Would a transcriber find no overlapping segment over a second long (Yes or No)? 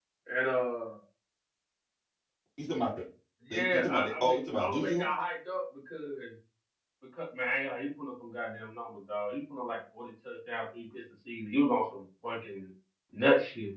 No